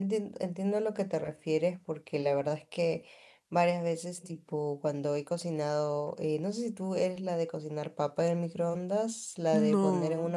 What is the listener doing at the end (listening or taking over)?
listening